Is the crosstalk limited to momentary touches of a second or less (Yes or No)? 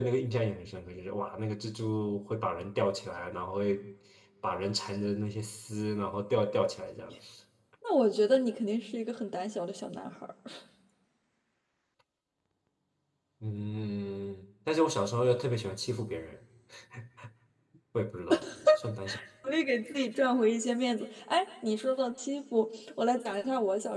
Yes